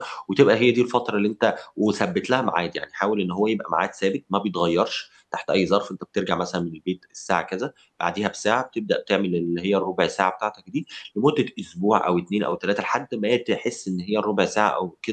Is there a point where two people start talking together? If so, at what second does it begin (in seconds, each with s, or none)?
none